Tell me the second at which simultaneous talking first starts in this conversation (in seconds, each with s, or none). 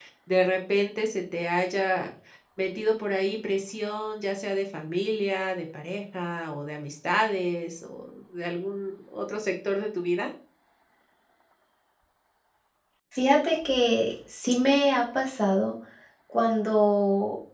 none